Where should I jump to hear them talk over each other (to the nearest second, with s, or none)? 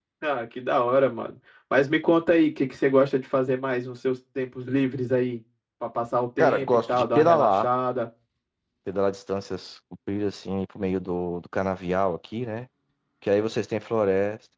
6 s